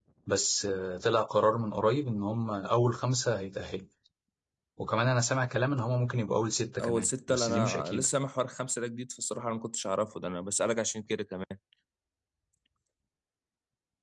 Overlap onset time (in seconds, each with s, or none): 6.8 s